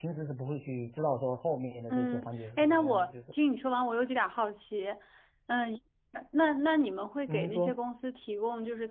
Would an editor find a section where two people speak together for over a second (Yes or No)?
Yes